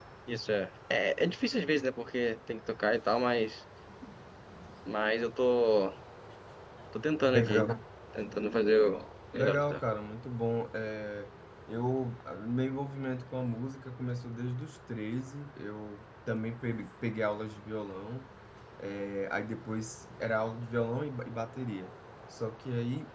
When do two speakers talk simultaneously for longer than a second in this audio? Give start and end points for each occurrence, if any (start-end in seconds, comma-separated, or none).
none